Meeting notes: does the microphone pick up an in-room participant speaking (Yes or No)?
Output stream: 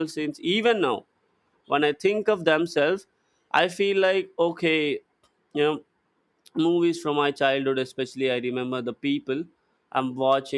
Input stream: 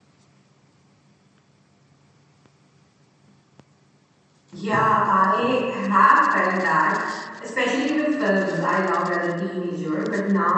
Yes